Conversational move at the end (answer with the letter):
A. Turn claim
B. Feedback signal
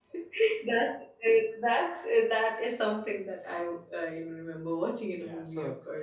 A